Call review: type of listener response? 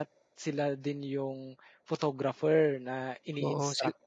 taking over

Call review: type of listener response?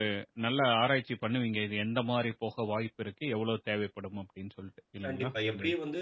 taking over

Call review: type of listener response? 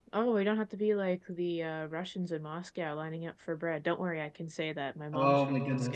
taking over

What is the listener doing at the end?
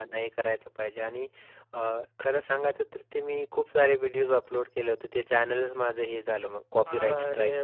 taking over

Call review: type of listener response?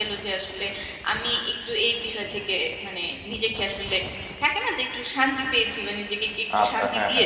taking over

